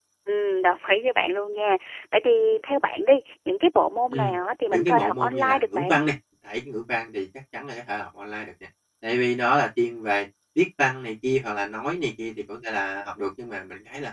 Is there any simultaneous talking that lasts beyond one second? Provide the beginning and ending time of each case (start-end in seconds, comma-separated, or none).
4.7-6.0